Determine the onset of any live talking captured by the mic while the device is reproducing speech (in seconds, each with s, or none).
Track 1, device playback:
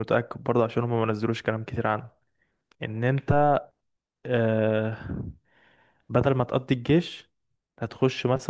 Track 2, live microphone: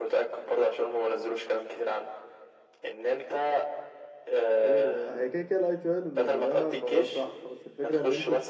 4.6 s